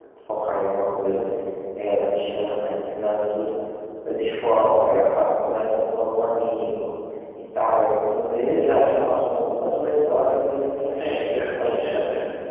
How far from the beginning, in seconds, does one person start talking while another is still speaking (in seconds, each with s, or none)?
10.8 s